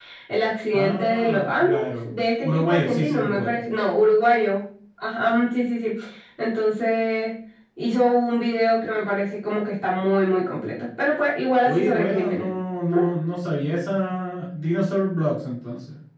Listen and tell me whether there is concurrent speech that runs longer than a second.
Yes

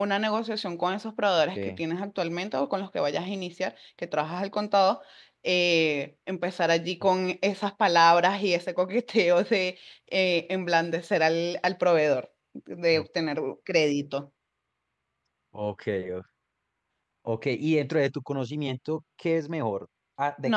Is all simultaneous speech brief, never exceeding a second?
Yes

